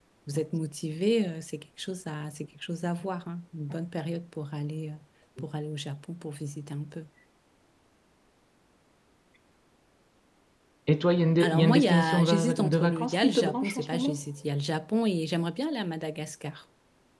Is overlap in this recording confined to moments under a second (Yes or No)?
No